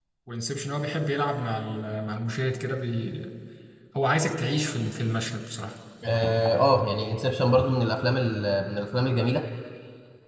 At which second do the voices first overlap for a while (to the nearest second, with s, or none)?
none